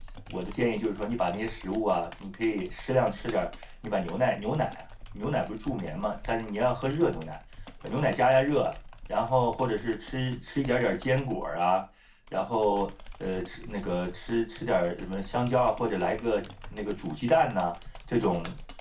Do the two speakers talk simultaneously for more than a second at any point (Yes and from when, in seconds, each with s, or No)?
No